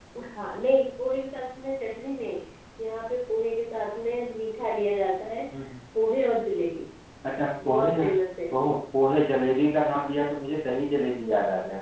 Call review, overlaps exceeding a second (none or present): none